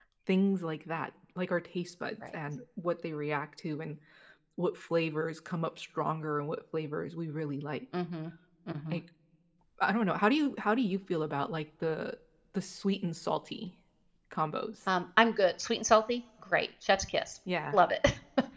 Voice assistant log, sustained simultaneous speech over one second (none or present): none